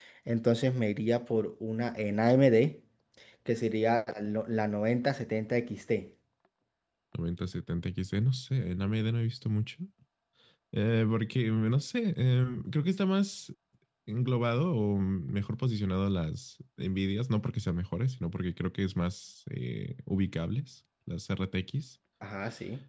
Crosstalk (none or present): none